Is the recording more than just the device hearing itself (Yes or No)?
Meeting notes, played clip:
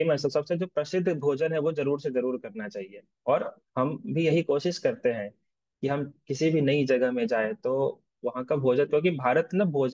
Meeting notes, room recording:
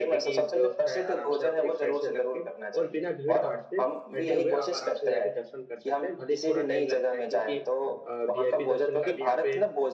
Yes